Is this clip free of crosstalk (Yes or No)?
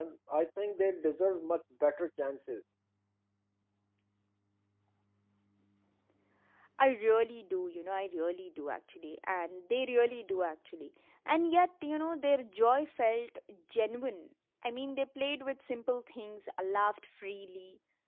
Yes